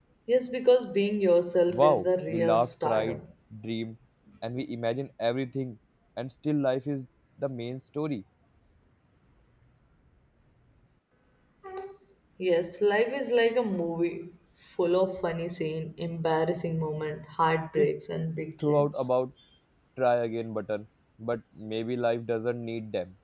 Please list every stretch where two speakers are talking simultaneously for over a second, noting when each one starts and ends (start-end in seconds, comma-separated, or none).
1.7-3.2